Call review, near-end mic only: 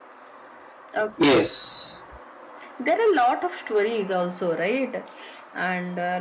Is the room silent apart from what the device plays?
No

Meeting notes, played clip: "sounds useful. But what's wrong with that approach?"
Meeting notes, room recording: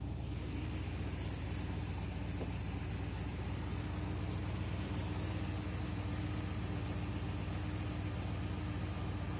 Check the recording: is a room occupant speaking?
No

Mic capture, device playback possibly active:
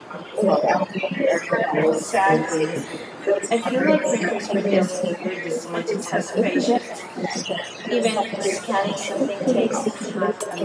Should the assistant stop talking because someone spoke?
Yes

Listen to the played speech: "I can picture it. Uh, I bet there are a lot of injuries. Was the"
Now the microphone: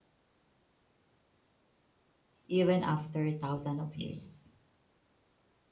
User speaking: Yes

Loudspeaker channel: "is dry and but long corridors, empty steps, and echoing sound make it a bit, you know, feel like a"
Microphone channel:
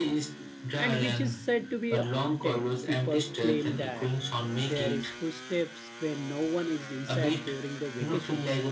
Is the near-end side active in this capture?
Yes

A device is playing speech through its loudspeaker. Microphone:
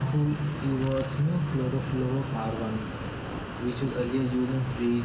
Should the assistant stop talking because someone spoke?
No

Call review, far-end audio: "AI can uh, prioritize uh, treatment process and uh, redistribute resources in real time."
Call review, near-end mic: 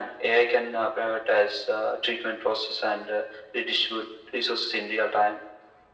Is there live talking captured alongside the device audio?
No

